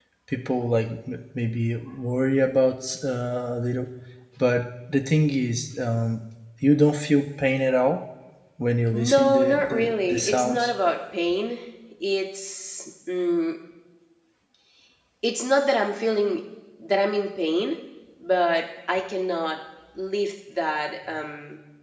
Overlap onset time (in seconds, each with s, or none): 8.9 s